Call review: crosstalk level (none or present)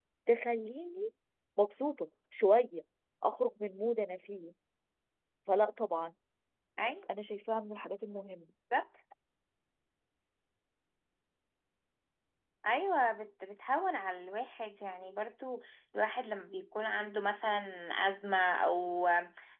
none